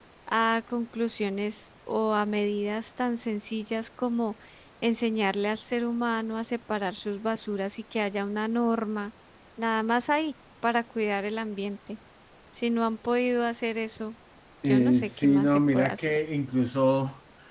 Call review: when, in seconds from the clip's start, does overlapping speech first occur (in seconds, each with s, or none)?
14.6 s